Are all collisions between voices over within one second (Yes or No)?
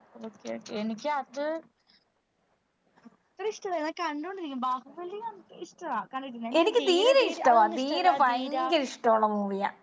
No